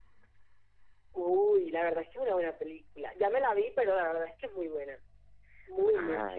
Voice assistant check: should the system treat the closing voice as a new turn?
Yes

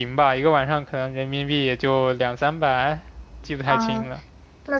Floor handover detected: Yes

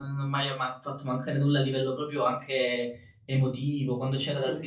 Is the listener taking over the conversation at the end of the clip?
No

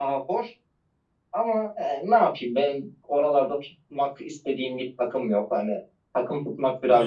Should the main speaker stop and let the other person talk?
Yes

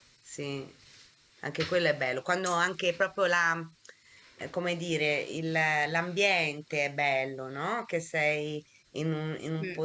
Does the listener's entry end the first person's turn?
No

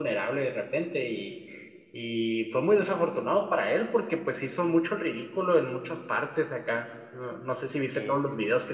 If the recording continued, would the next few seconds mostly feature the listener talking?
No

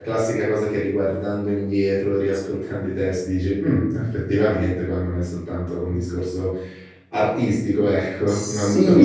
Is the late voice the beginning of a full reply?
Yes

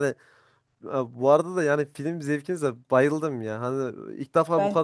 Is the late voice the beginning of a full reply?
No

